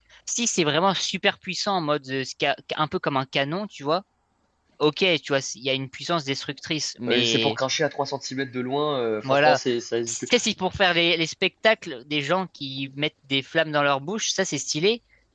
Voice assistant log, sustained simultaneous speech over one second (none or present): none